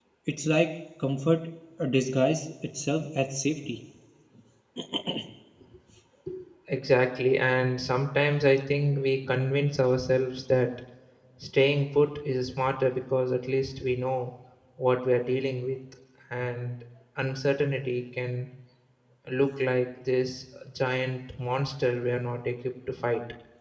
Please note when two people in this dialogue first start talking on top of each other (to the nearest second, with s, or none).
none